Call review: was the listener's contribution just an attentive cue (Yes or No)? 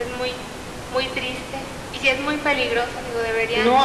No